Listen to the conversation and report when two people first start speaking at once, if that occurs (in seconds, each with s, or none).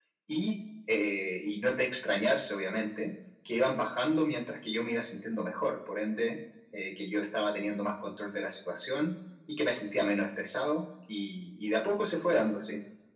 none